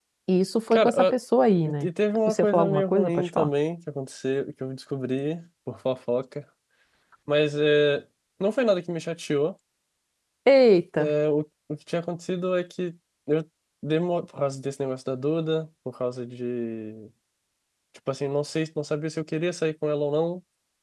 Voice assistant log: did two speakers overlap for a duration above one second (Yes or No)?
Yes